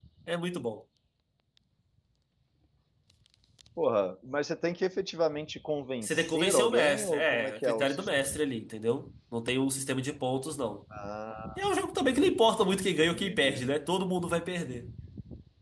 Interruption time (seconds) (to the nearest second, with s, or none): 6 s